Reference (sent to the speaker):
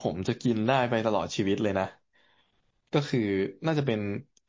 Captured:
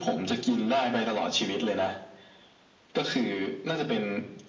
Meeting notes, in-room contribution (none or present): none